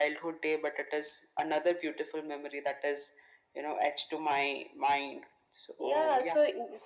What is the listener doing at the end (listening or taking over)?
taking over